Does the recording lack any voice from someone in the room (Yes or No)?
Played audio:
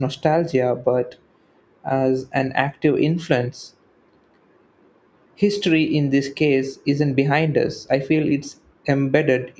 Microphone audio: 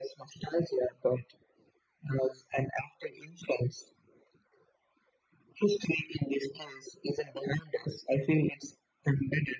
Yes